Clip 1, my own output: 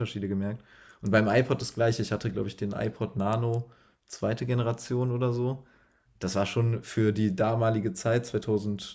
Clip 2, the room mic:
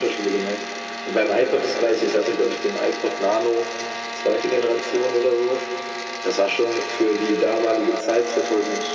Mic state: echo only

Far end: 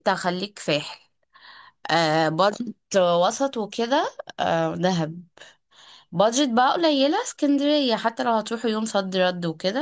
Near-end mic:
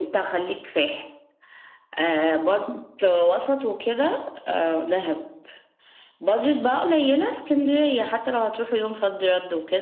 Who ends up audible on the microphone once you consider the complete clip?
echo only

